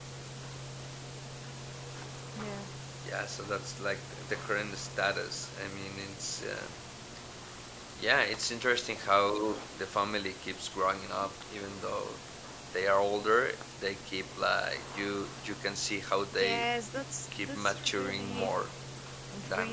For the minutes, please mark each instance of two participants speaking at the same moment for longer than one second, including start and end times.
17.3-18.5

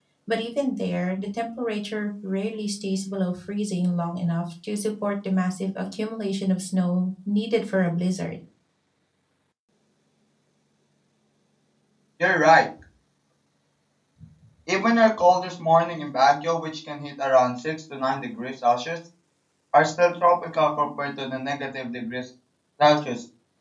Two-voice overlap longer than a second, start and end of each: none

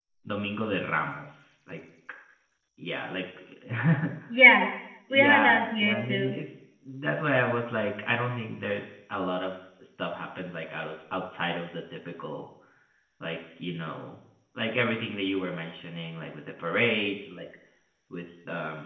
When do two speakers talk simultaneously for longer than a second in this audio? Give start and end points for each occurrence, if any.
5.1-6.3

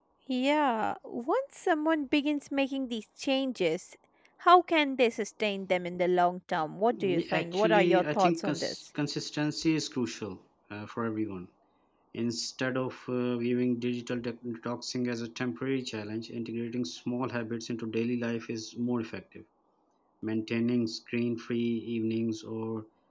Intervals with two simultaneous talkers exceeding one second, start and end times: 6.9-8.7

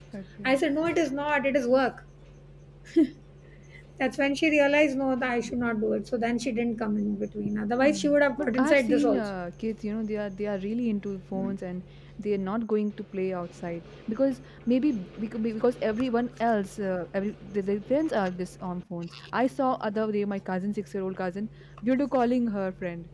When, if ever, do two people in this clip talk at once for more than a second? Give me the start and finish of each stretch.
7.8-9.3

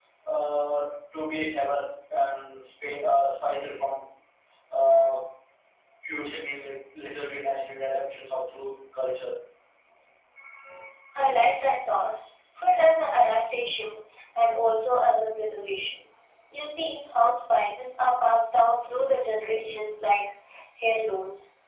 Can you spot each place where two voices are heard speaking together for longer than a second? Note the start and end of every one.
none

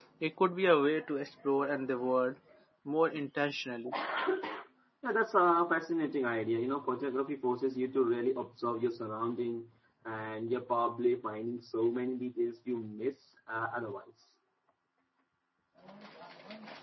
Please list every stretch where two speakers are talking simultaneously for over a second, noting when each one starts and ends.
none

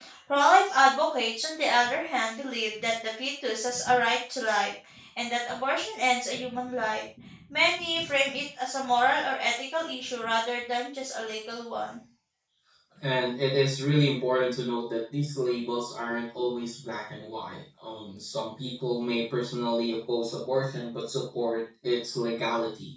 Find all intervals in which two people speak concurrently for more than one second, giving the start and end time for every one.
none

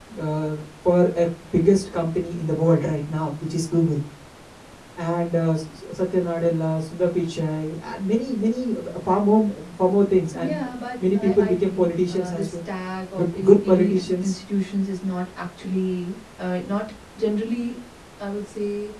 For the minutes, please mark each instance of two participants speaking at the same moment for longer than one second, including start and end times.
11.2-12.5, 13.2-14.4

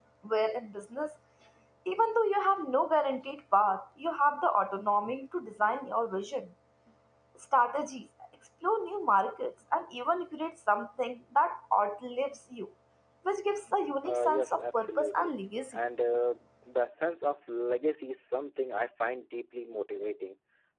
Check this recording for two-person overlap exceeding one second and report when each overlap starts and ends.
14.0-15.3

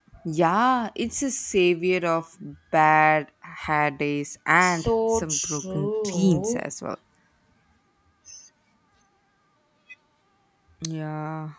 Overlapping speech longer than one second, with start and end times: 4.6-6.6

